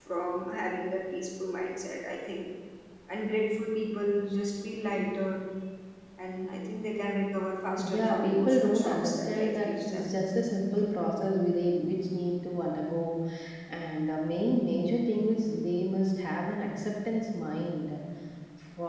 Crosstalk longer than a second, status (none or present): present